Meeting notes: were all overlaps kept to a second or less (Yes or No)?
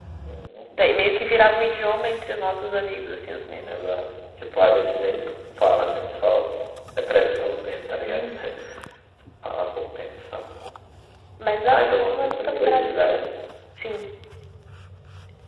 No